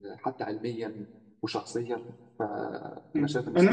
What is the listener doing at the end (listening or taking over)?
taking over